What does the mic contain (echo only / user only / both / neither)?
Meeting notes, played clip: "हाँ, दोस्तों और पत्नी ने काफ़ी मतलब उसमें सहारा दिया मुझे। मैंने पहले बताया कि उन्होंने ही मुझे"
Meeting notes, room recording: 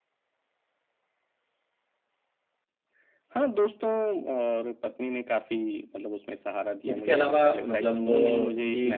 both